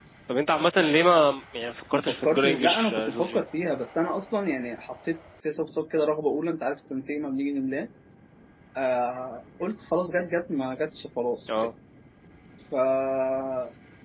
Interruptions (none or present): present